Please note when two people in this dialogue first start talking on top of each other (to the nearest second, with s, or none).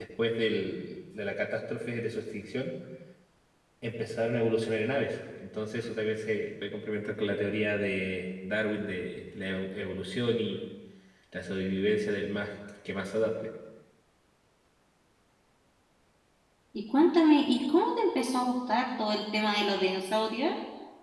none